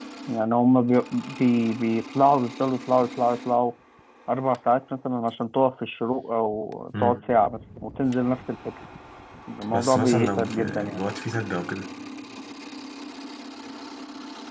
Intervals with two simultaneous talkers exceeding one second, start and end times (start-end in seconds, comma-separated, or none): 9.7-11.0